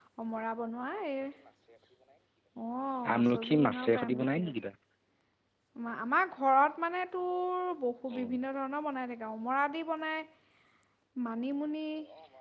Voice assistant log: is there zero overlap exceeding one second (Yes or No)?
No